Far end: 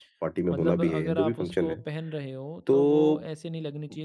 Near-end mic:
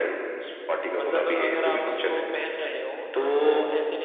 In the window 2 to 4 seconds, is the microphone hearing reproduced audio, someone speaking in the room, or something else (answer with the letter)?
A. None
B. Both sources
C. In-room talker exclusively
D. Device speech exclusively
D